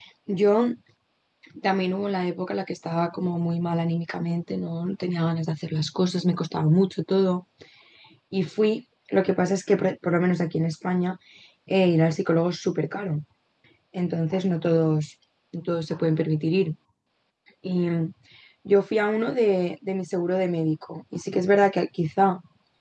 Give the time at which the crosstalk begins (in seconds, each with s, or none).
none